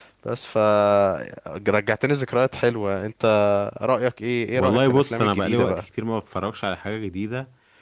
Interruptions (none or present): present